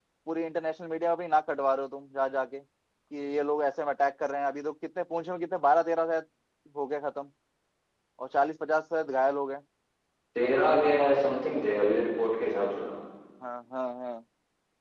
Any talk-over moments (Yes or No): No